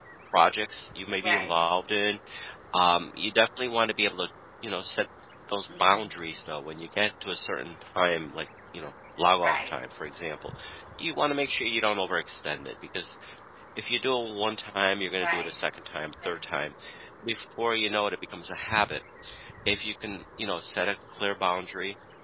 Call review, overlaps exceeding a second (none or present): none